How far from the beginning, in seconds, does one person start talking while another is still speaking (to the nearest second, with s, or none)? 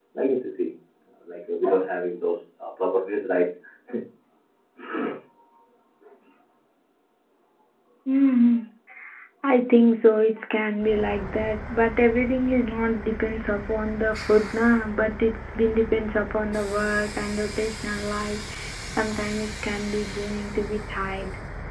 none